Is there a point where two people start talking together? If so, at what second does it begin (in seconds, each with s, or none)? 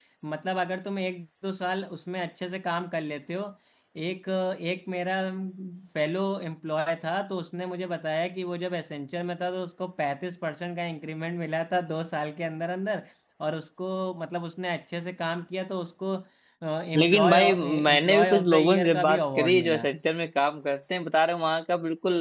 17.0 s